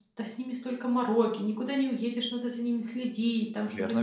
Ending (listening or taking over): listening